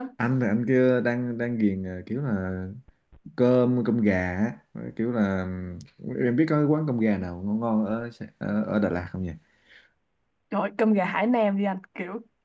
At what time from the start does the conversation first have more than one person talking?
none

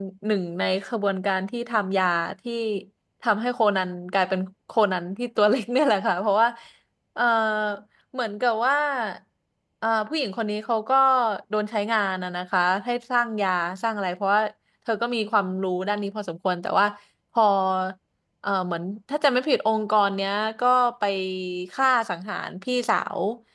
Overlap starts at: none

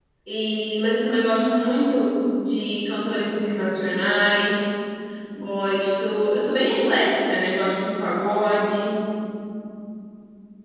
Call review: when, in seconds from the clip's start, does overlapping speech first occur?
none

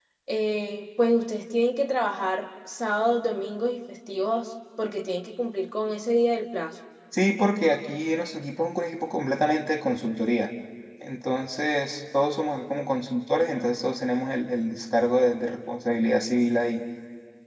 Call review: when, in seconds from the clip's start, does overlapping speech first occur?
none

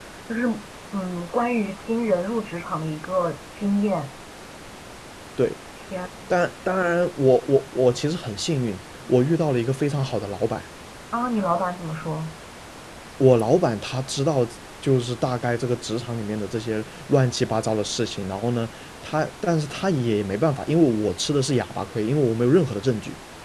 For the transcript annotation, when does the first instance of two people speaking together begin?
none

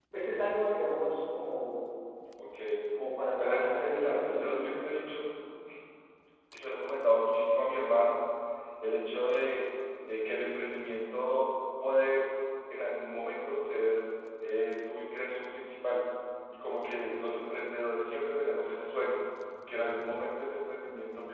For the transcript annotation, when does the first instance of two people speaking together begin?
3 s

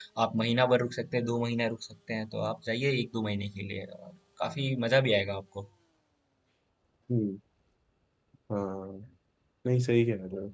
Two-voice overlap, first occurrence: none

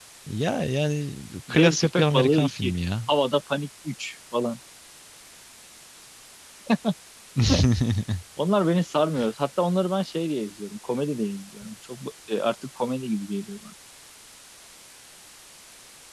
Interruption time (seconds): 1 s

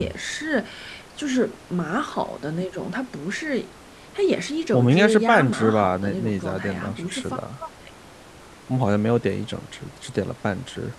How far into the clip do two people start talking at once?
5 s

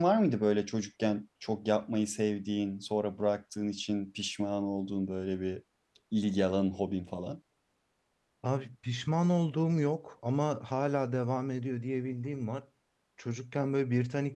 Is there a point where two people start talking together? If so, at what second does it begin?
none

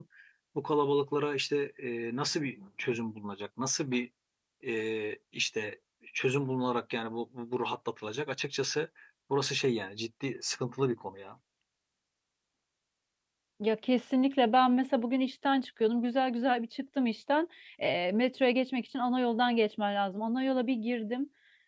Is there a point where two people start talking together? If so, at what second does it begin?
none

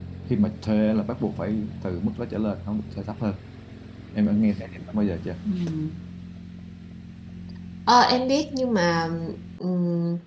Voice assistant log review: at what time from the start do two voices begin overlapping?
none

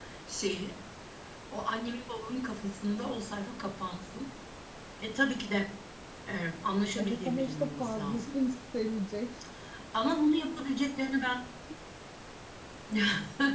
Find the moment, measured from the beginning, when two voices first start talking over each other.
7 s

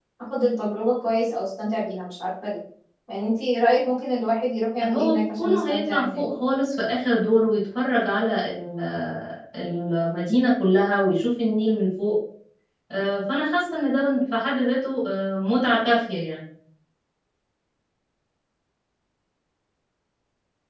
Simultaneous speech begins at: 5 s

